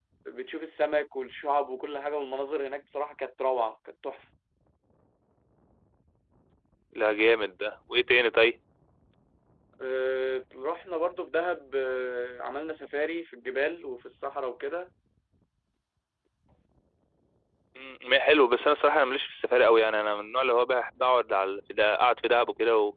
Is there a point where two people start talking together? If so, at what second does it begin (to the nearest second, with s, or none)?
none